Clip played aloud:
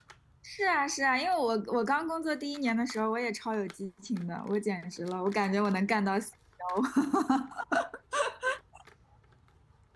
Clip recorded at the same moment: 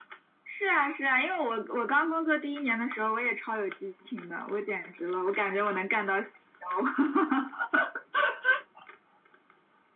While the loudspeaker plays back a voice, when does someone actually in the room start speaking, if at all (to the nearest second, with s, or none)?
none